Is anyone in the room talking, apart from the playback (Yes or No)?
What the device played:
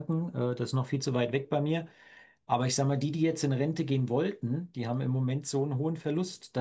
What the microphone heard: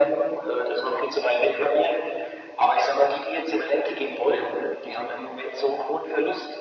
No